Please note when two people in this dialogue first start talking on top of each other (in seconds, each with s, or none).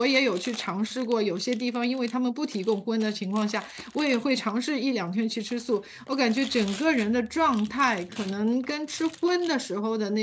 none